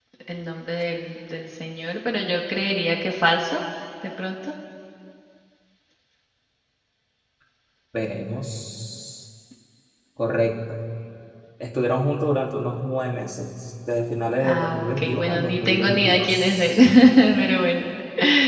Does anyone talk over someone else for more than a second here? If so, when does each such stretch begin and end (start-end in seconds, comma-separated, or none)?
14.4-16.7